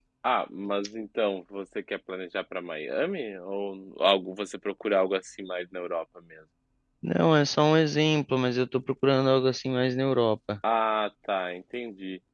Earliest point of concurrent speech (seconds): none

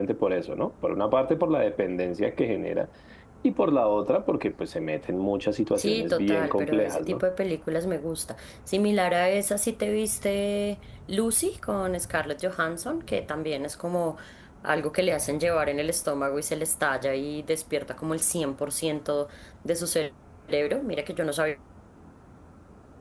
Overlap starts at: 5.8 s

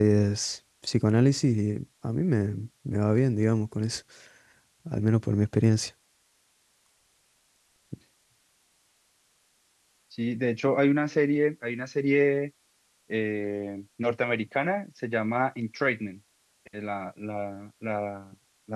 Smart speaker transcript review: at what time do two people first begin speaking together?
none

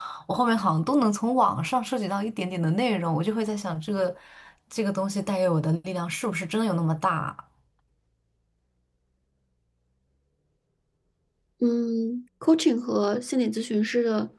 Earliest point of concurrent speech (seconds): none

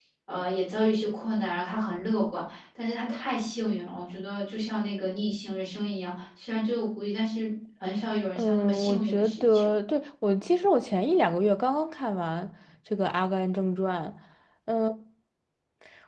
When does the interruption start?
8.4 s

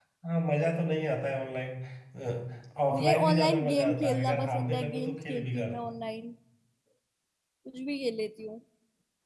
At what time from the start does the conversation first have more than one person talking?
2.9 s

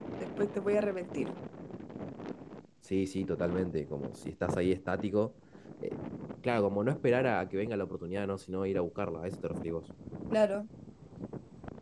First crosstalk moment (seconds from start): none

